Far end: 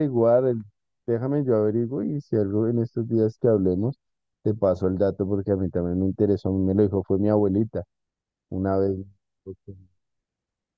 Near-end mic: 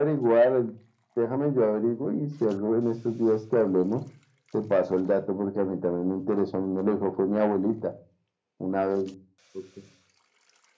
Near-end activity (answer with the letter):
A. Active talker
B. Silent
B